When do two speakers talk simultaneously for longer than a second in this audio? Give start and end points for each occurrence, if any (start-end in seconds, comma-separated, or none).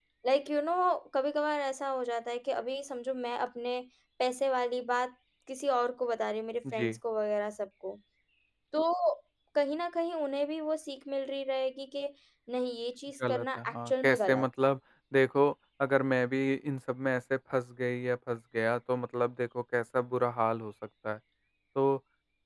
13.3-14.7